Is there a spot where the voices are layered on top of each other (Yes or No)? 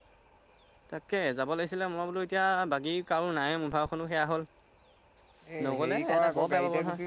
Yes